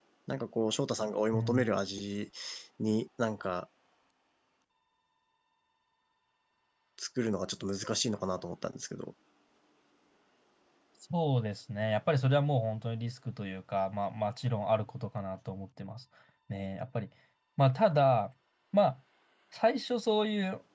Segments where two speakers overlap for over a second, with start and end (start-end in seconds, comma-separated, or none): none